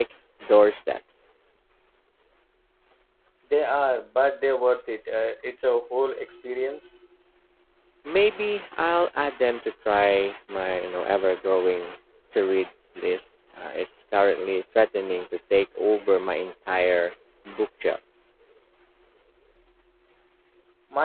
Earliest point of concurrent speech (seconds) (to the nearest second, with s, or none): none